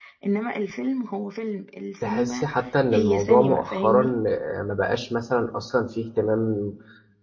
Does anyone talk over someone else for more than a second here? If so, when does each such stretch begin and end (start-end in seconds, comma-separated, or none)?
2.9-4.2